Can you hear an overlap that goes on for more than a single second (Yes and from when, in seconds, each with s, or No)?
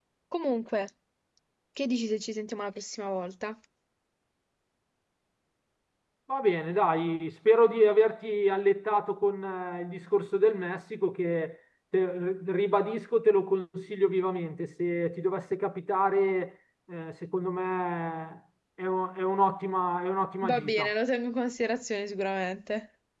No